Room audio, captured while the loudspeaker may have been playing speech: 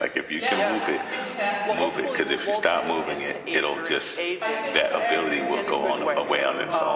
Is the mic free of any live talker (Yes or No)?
No